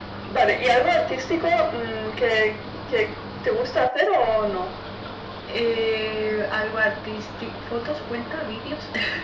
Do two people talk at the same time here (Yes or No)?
No